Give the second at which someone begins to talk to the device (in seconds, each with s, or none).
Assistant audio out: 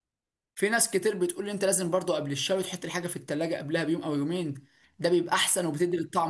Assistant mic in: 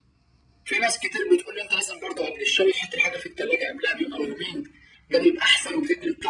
none